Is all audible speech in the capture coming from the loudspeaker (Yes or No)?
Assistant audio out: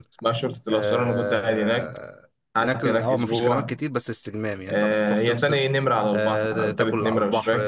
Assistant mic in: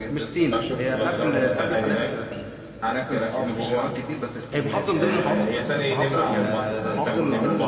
No